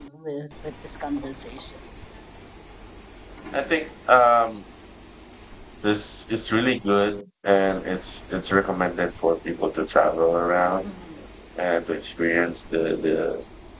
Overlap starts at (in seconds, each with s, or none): none